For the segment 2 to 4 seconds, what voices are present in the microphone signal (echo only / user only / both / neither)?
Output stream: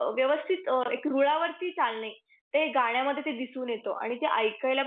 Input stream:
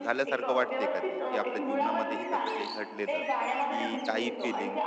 both